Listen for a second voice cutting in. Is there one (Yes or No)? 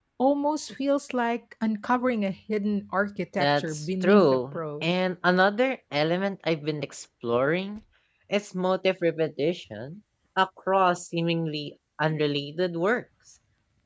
Yes